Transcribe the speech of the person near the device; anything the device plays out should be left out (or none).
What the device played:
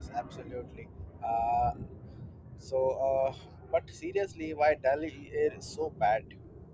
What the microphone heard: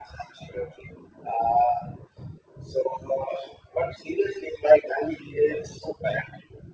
none